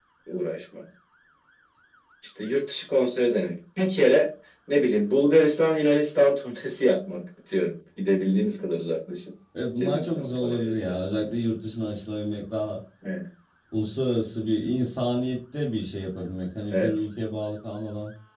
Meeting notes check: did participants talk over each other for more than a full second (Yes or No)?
Yes